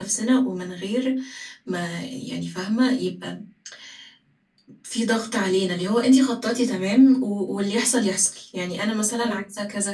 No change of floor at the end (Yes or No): Yes